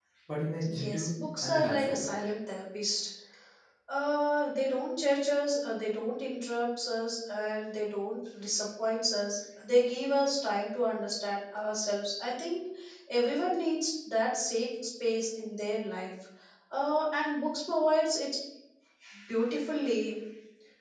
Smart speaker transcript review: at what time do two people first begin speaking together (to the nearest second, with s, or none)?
1 s